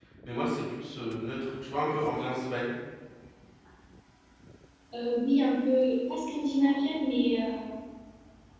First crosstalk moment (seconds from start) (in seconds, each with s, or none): none